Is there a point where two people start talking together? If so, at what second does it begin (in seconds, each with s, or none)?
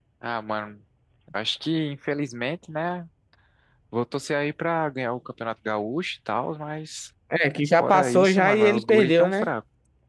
7.8 s